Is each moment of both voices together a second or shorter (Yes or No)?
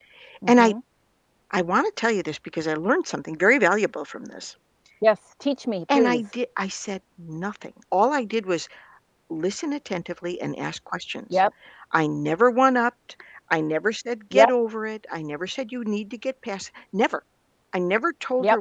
Yes